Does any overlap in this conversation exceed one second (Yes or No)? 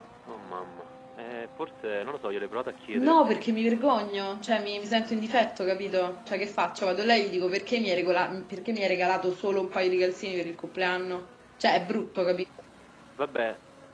No